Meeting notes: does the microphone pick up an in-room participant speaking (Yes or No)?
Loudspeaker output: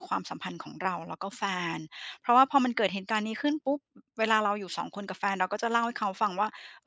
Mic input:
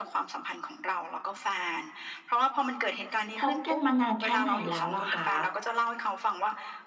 Yes